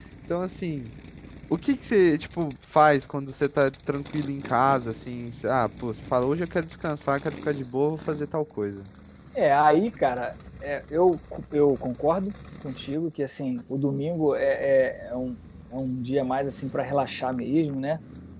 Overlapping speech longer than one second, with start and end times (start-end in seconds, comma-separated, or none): none